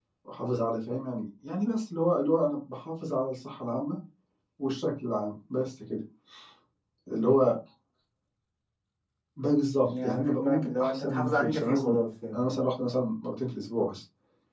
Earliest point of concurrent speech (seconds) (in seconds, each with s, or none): 9.8 s